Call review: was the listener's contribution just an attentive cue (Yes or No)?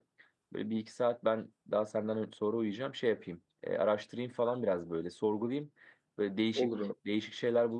Yes